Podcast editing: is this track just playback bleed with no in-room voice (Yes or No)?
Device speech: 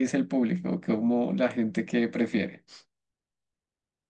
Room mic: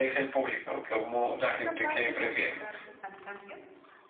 No